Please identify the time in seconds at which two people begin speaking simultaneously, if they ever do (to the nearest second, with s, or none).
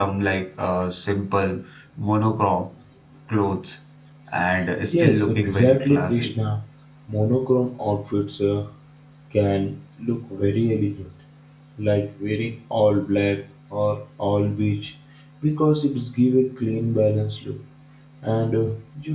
5 s